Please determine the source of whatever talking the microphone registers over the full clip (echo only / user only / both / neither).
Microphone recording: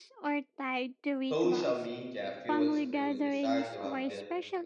both